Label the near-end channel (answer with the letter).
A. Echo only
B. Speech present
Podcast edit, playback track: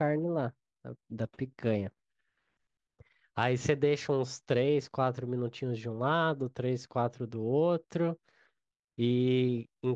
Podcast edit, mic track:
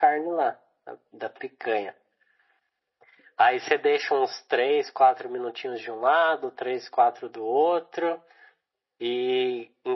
A